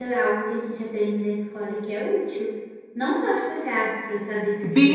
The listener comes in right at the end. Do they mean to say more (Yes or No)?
Yes